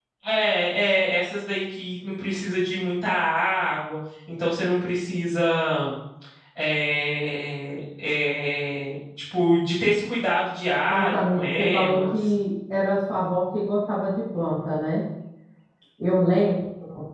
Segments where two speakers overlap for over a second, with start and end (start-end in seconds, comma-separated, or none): 10.9-12.1